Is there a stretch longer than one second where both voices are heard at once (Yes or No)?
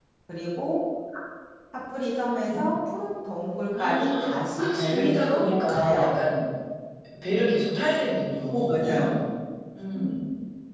Yes